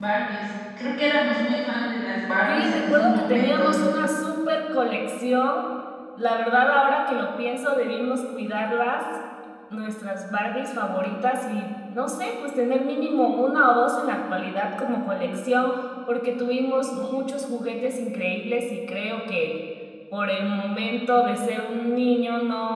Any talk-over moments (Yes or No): Yes